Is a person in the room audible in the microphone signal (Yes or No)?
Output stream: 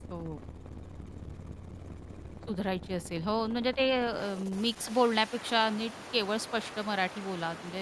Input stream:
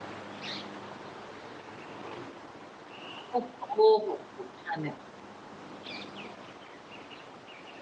Yes